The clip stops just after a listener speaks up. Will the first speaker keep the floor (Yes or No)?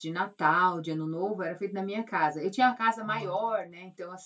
Yes